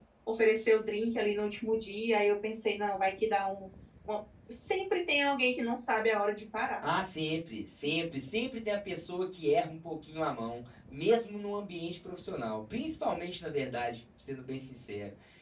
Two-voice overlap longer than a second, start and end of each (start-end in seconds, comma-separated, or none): none